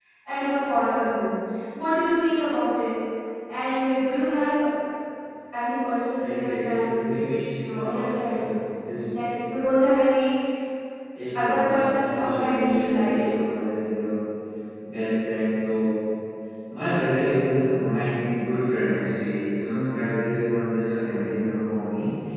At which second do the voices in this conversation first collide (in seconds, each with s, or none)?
6.1 s